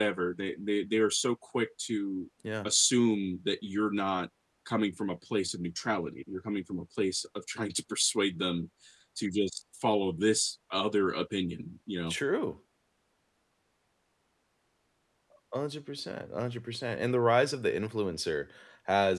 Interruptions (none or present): none